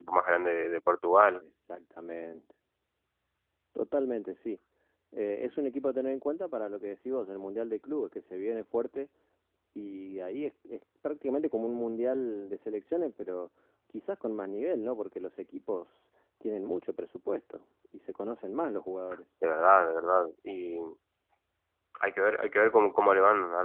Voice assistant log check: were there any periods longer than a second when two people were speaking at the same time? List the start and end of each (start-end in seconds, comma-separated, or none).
none